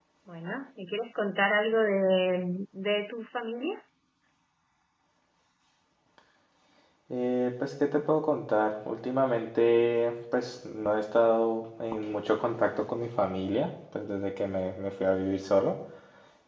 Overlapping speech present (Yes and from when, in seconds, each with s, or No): No